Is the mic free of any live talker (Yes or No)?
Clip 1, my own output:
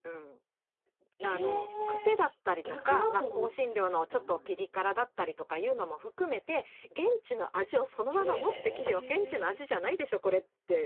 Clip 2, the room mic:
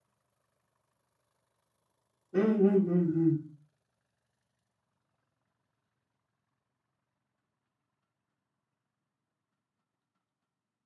No